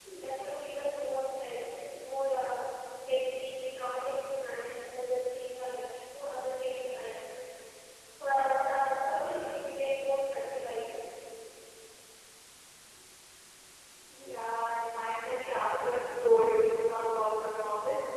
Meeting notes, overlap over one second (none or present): none